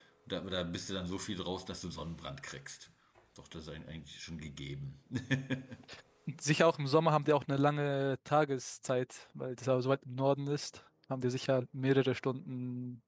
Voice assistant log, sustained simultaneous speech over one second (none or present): none